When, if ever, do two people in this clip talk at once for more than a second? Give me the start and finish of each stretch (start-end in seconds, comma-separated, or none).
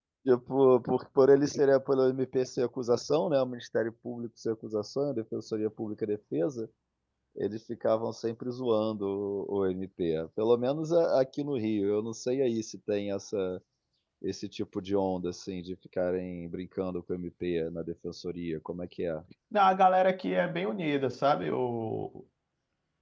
none